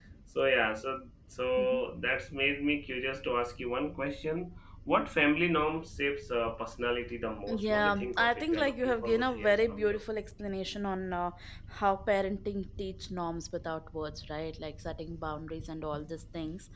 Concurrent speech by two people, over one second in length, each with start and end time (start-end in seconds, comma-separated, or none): 7.5-10.0